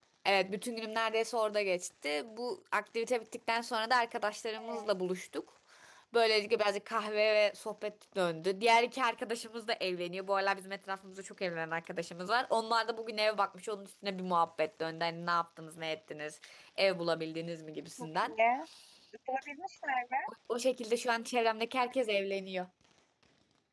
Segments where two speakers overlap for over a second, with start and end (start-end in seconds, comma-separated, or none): none